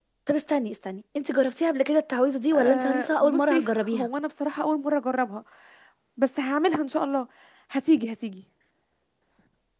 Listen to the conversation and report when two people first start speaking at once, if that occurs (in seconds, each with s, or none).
2.5 s